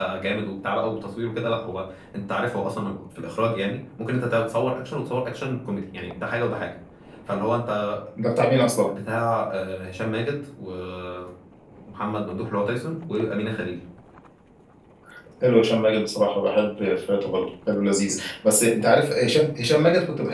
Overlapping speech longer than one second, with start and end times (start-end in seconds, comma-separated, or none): none